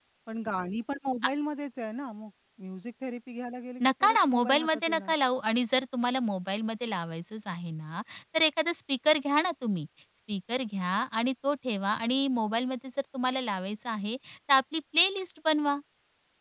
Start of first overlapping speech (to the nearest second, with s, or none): 4 s